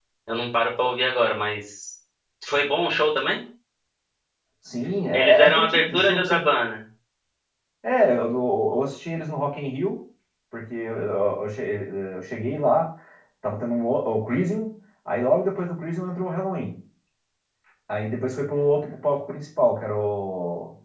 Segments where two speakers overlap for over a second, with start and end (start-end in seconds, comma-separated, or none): 5.1-6.5